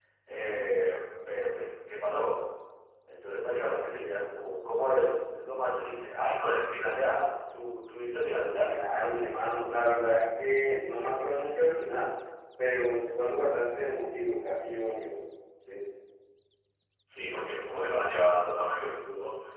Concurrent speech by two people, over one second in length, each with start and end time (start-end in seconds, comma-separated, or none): none